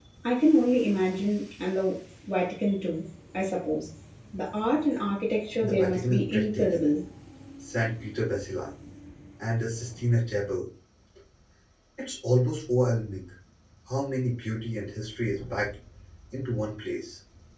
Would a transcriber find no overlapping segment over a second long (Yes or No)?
No